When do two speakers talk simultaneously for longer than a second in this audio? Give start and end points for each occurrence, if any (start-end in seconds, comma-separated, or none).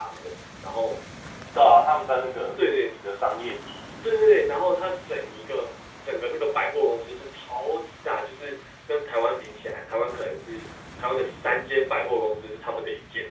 none